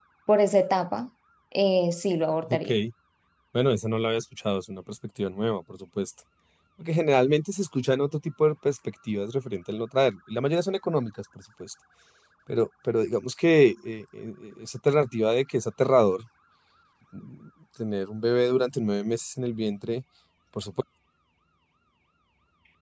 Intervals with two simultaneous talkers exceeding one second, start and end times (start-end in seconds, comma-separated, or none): none